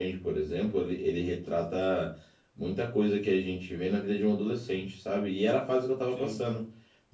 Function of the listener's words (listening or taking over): listening